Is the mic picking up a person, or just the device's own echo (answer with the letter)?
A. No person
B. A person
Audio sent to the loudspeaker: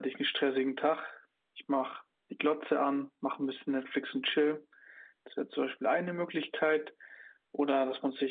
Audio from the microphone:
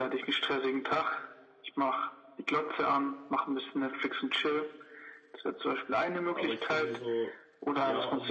B